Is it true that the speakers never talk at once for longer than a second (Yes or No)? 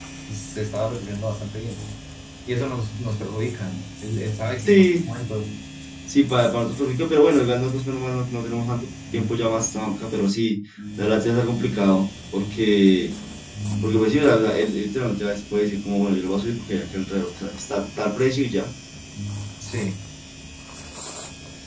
Yes